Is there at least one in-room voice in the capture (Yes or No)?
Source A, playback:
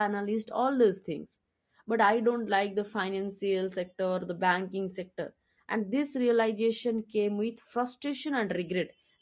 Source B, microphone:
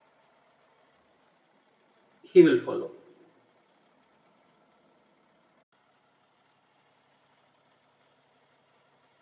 Yes